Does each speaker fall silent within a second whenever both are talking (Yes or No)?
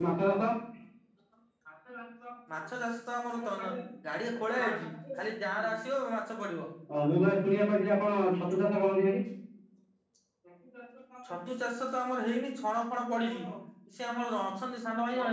Yes